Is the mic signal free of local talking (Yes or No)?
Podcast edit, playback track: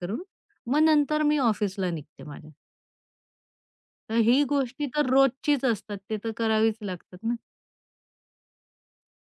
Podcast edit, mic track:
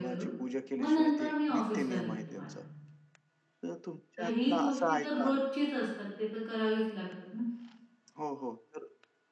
No